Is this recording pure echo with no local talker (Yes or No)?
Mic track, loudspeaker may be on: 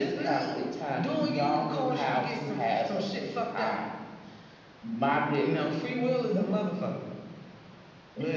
Yes